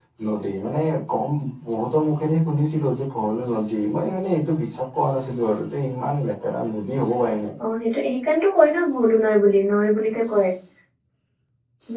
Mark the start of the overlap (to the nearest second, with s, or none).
none